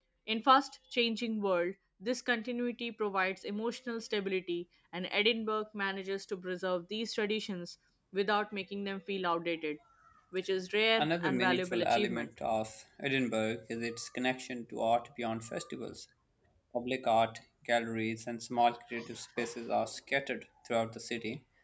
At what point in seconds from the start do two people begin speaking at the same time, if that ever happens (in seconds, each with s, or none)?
11.0 s